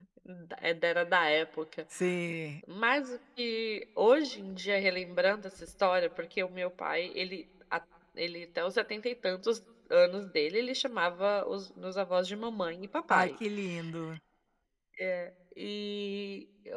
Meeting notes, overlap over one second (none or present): none